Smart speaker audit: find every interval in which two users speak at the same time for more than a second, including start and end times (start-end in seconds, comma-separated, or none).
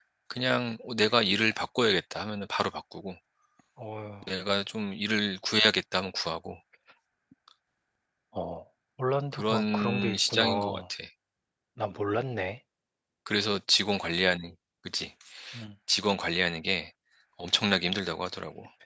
9.3-10.8